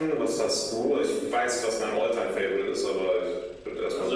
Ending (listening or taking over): taking over